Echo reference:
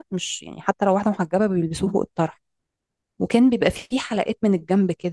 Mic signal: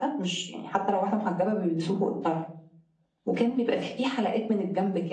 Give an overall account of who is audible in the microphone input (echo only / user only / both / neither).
echo only